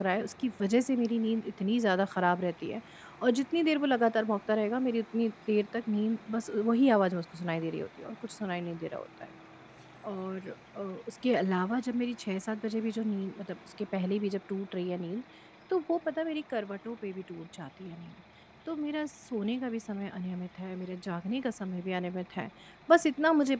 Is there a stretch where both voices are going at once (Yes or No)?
No